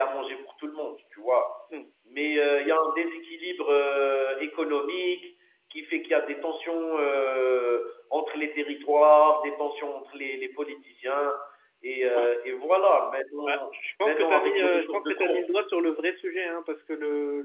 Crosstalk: present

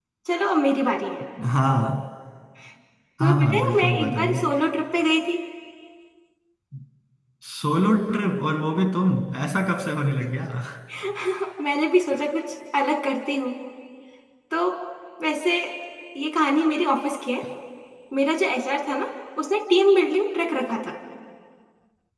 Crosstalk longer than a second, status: present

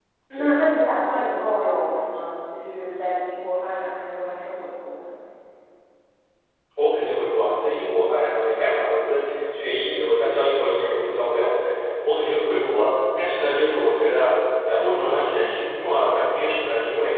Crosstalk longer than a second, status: none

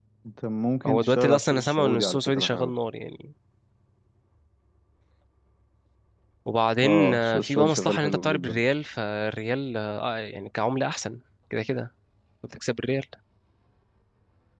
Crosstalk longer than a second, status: present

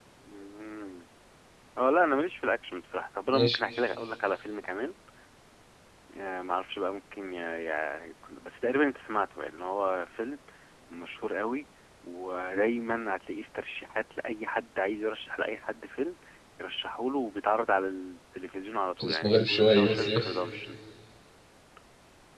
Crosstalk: present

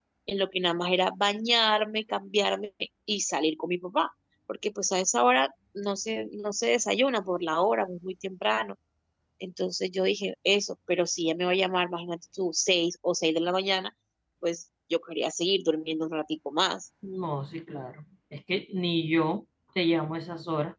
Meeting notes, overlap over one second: none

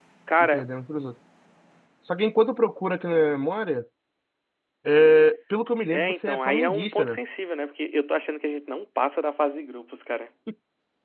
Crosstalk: present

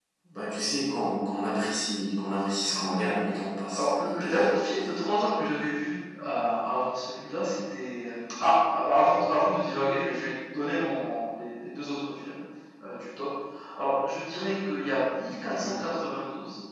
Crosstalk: present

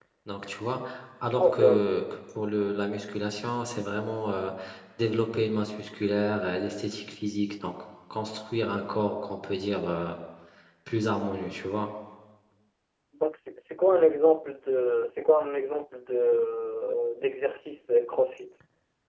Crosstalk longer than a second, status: none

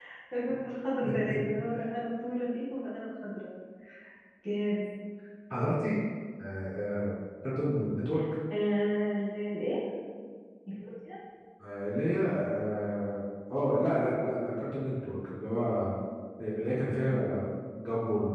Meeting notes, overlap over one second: none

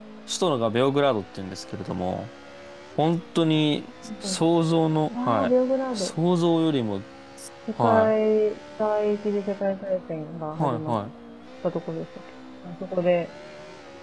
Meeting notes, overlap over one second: none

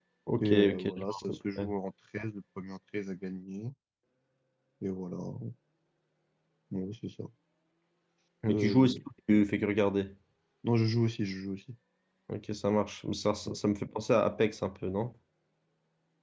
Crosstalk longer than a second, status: present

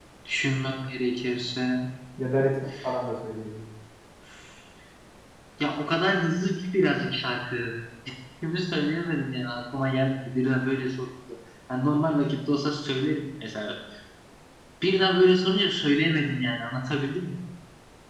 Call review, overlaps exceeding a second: none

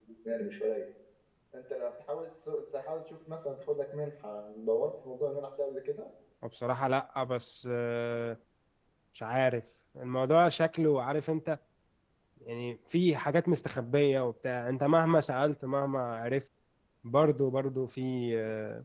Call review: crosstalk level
none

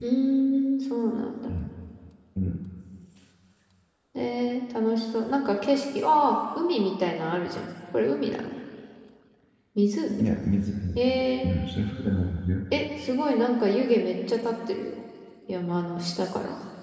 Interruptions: none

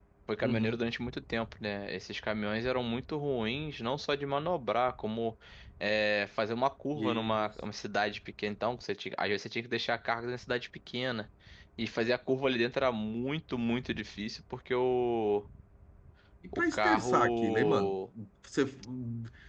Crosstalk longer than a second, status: present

